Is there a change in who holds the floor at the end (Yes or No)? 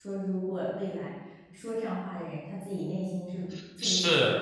Yes